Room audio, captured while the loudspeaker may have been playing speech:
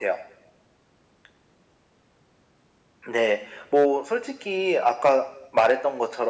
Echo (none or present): present